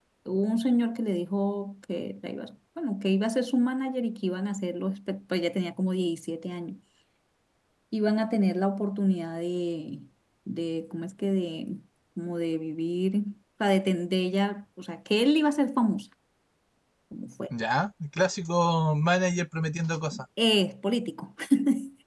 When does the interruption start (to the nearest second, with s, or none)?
none